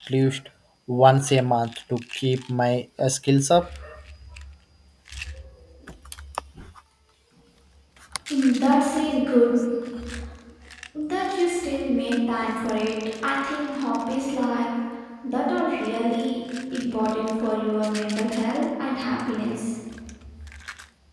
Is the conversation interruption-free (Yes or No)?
Yes